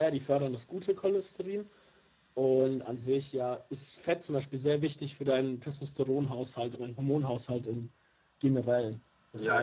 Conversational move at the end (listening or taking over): taking over